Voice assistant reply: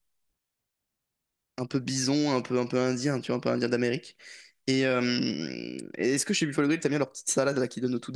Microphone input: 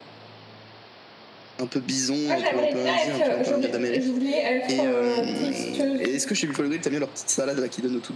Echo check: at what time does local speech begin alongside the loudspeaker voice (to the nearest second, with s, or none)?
2 s